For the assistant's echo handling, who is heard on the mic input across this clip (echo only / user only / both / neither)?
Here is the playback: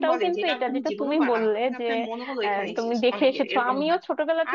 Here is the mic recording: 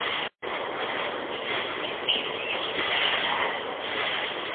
neither